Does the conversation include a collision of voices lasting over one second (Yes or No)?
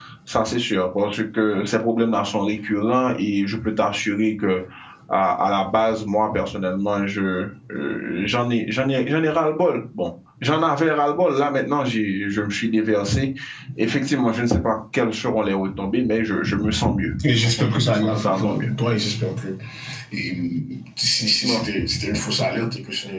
Yes